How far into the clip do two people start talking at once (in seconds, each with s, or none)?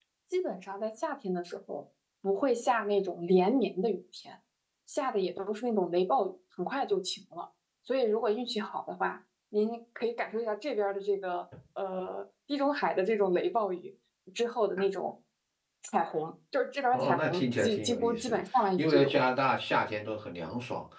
16.9 s